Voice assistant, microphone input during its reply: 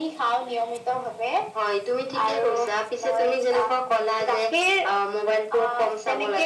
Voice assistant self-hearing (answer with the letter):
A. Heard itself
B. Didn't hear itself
A